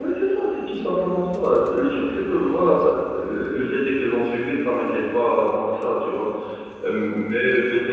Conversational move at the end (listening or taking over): listening